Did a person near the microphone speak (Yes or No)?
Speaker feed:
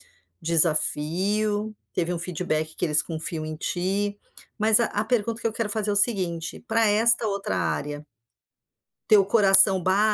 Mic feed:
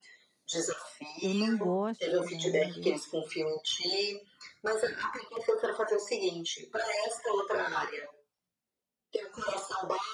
Yes